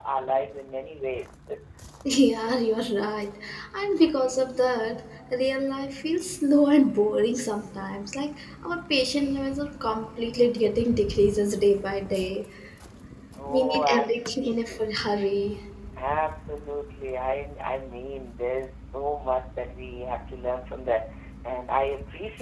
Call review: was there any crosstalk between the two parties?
Yes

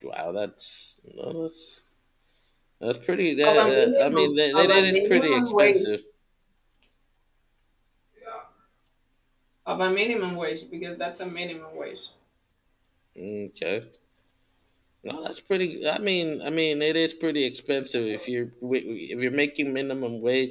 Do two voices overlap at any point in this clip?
Yes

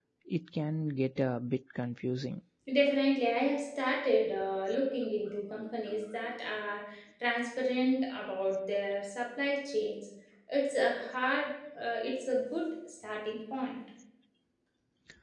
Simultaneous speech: No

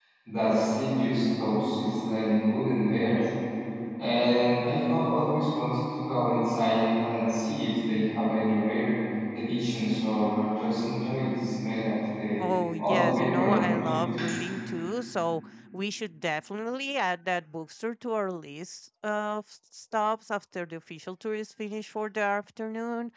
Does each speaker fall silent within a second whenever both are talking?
No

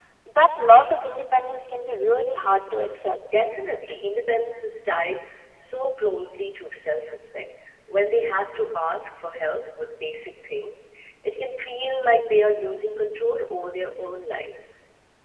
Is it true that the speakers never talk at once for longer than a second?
Yes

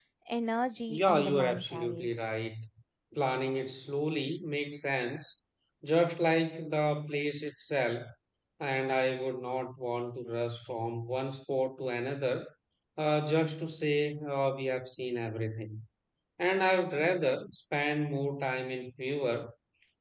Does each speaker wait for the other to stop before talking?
No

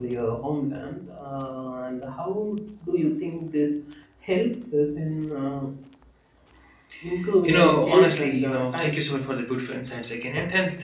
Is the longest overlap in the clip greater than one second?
Yes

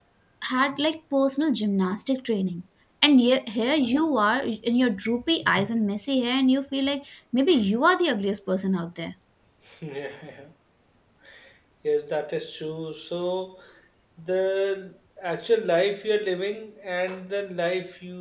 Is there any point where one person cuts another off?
No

